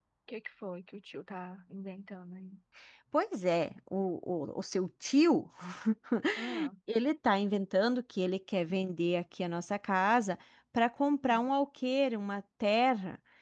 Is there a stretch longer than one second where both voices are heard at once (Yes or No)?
No